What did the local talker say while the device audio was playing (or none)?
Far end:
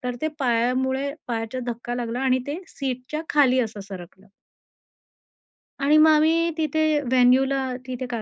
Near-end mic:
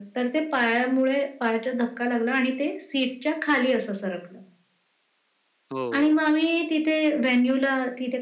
हो, हो.